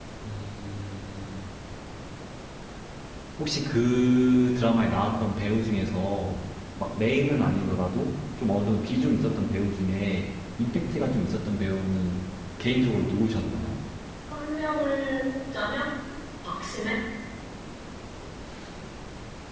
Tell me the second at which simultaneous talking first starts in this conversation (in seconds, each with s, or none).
none